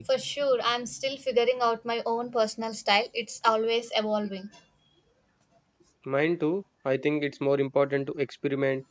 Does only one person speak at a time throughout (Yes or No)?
Yes